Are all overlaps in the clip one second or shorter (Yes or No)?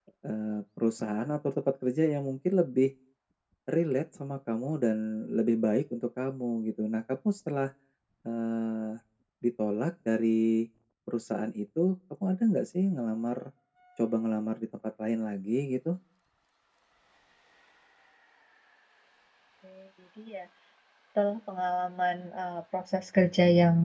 Yes